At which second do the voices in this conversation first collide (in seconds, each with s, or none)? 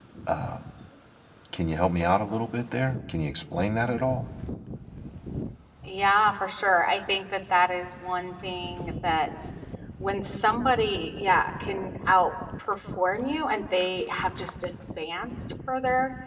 none